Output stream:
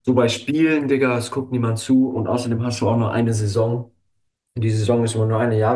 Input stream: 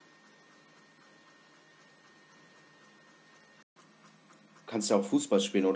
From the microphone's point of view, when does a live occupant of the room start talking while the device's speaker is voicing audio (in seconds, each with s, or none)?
4.6 s